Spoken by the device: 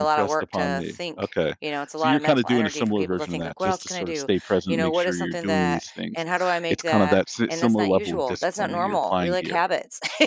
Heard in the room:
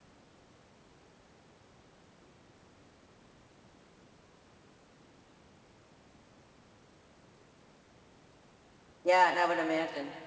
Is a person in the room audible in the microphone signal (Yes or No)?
Yes